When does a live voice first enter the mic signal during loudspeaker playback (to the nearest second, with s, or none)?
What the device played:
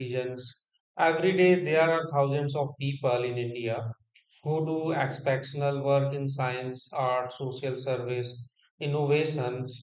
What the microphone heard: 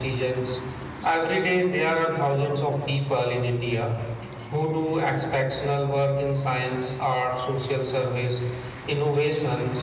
none